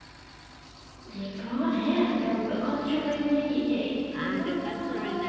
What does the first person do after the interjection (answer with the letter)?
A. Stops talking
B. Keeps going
A